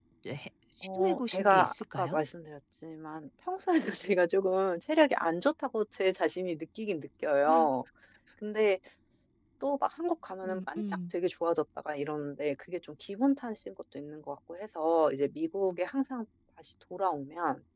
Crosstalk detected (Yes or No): Yes